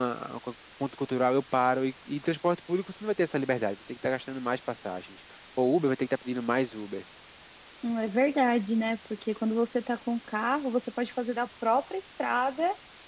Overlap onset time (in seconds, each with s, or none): none